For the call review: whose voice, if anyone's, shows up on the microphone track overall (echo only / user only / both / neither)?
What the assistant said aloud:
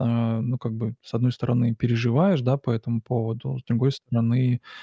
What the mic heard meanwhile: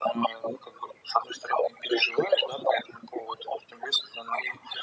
echo only